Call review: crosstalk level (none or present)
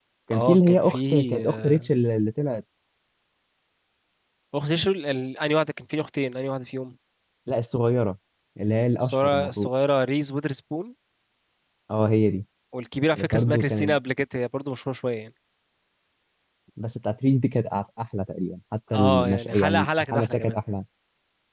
present